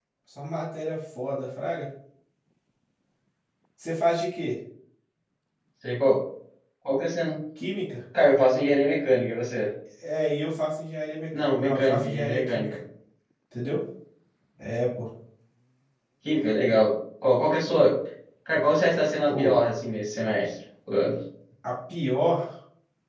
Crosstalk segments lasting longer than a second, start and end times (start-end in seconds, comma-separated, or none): 11.3-12.6